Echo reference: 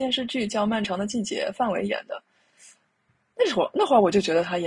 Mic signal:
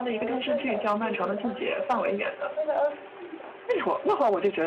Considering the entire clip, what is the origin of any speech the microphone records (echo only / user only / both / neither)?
both